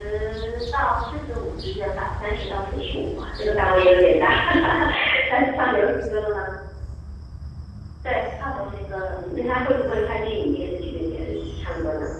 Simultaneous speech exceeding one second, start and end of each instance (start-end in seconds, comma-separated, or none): none